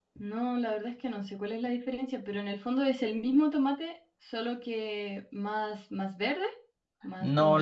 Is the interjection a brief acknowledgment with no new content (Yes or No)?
No